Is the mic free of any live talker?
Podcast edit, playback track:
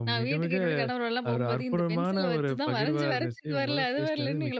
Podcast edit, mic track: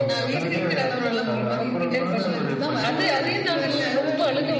No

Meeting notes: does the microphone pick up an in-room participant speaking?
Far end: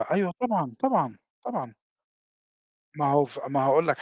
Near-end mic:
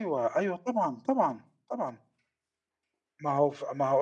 No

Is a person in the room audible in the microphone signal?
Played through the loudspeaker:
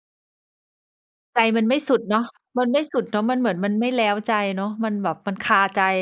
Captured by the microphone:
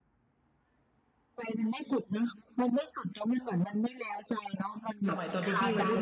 Yes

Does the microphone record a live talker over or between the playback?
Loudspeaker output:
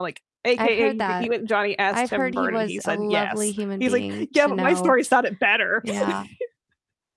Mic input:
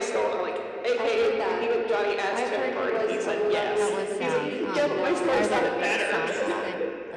Yes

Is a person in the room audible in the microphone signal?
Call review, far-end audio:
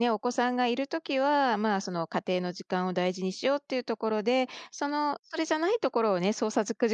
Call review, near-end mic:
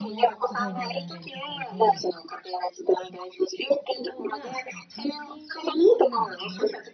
Yes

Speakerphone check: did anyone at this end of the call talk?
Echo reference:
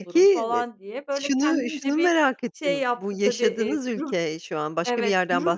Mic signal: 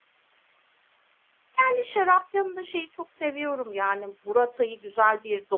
Yes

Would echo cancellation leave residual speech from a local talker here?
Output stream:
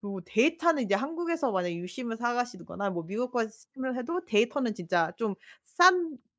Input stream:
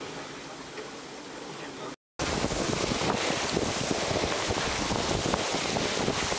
No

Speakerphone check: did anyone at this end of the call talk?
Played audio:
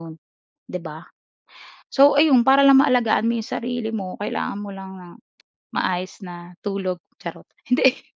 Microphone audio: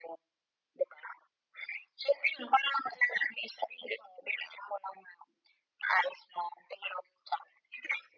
No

